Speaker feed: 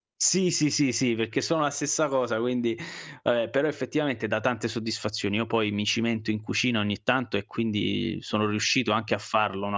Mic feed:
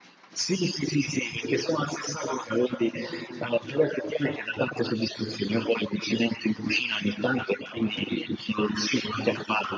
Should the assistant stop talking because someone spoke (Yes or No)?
No